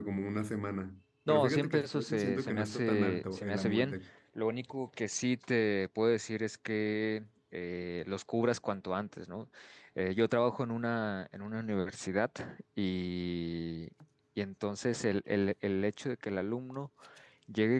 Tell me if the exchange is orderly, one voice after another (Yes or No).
No